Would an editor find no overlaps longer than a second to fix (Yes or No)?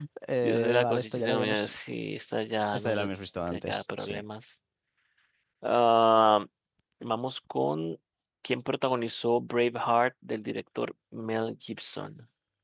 No